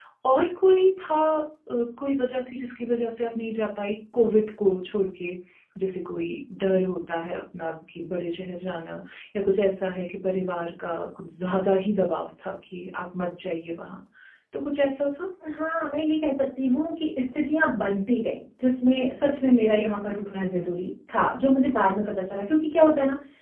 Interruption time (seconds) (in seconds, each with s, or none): none